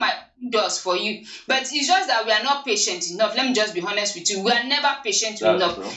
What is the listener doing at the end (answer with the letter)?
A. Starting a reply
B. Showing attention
B